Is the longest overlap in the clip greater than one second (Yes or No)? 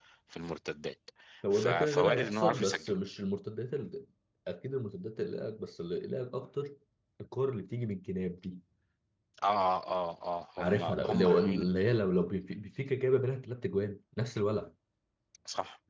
Yes